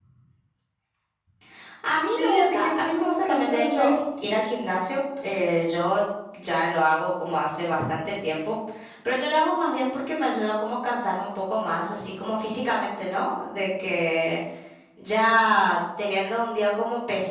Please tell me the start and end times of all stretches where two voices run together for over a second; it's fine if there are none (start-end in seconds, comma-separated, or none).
2.2-4.0